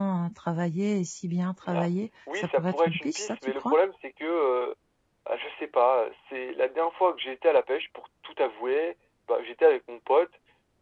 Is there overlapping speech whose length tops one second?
Yes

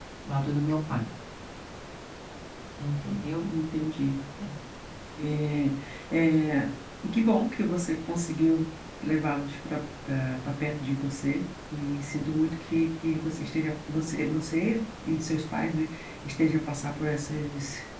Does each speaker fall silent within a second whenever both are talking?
Yes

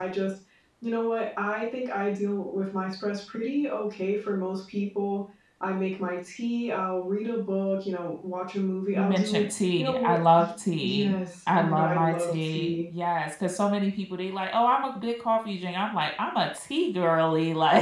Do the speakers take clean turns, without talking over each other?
No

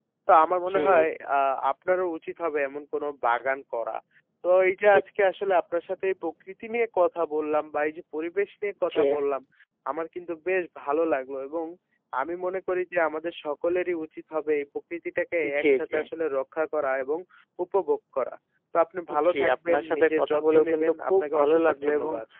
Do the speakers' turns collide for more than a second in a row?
Yes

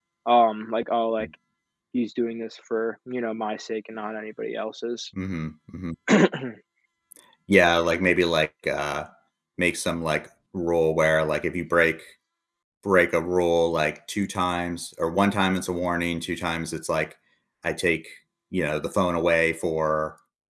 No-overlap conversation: Yes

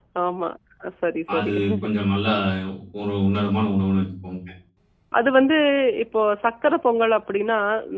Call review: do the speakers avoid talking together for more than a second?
Yes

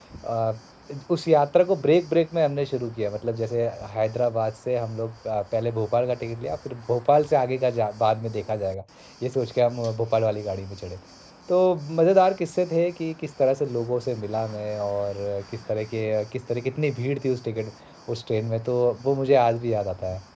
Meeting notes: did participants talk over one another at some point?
No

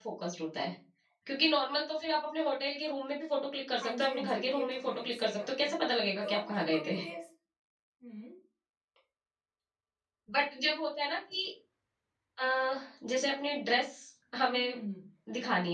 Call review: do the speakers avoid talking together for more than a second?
No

